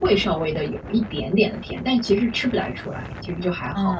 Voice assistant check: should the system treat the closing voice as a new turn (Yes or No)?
Yes